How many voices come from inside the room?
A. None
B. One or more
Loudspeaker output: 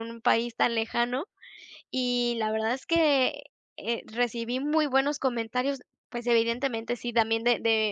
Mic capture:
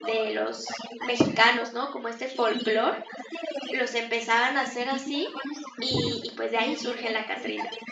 B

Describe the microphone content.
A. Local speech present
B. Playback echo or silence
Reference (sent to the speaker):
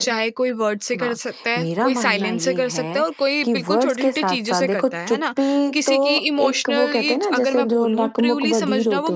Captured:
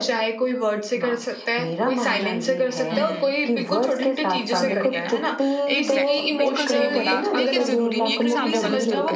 A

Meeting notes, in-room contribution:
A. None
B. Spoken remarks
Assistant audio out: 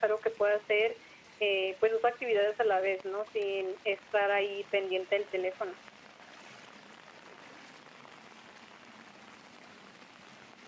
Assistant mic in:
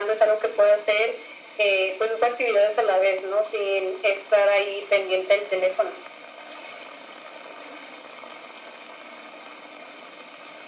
A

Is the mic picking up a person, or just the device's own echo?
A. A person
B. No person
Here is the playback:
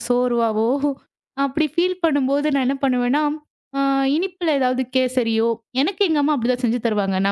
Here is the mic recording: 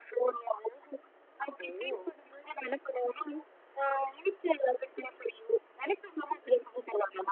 A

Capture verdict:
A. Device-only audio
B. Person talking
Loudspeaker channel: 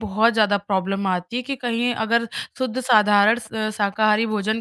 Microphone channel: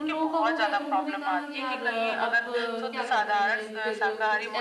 B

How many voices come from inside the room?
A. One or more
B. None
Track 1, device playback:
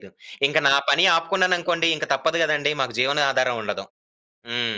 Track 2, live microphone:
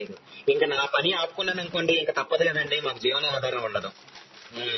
B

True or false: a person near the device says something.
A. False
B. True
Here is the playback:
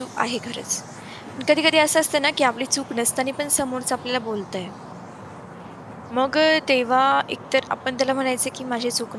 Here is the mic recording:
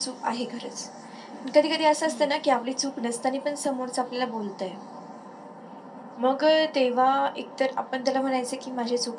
B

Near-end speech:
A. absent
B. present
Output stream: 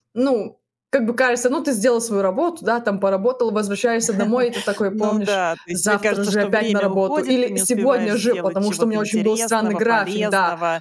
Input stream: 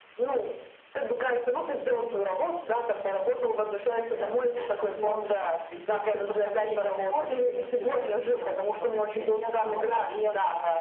A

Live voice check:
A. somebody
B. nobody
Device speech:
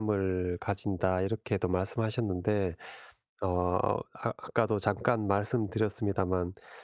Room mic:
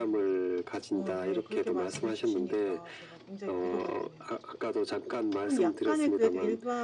A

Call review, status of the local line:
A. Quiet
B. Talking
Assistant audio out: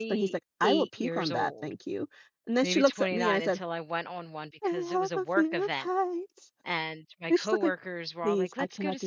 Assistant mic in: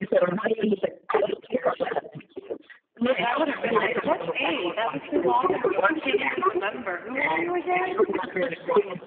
B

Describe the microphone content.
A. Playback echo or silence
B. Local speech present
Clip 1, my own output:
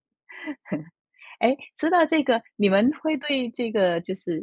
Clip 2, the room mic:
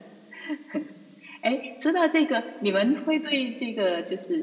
A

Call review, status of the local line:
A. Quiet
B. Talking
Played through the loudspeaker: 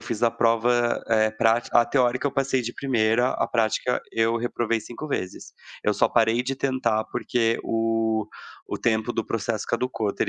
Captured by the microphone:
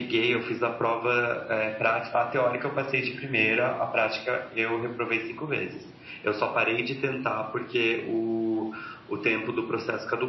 A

